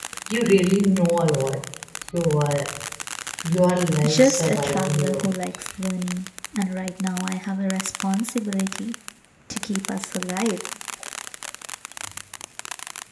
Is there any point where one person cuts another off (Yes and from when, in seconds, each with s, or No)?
Yes, from 4.0 s